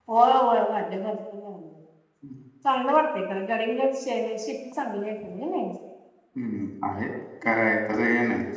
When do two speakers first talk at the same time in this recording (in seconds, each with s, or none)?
none